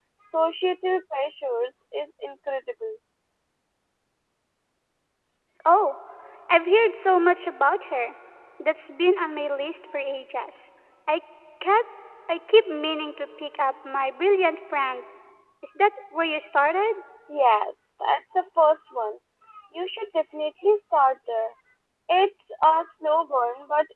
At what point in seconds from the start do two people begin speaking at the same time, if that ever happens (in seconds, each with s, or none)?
none